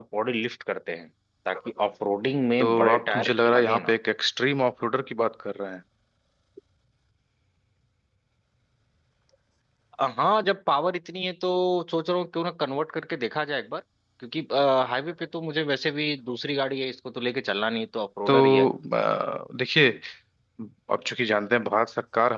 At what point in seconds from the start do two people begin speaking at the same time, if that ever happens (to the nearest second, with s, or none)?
3 s